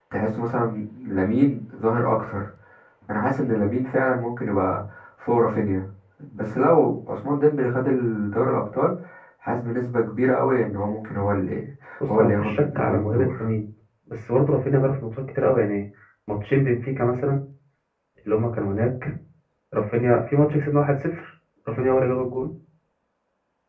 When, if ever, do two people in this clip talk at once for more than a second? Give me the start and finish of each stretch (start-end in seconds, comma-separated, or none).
12.1-13.5